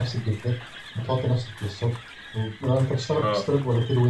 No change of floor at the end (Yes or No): Yes